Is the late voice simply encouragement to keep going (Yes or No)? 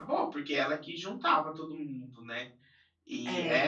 Yes